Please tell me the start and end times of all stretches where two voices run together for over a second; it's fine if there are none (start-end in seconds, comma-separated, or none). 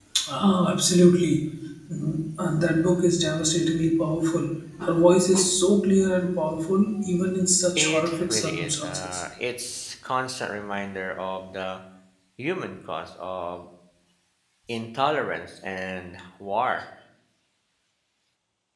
7.8-9.2